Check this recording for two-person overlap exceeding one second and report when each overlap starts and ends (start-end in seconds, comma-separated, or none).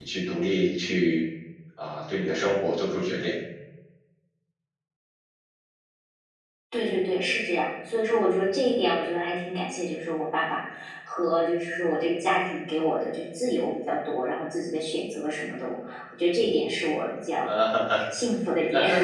none